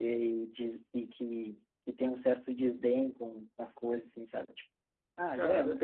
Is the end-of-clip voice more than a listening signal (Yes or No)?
Yes